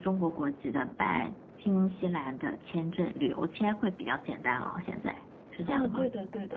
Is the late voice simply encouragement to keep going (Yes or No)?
No